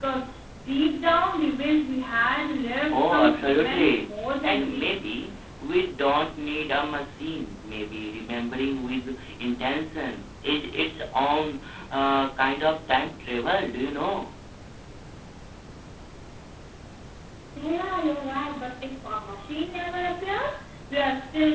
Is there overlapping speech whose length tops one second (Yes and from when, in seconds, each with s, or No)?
Yes, from 2.9 s